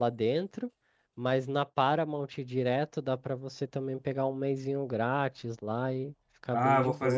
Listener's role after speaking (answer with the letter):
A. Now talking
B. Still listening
A